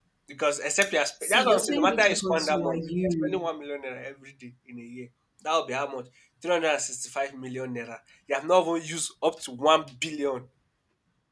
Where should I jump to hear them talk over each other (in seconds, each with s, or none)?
1.2 s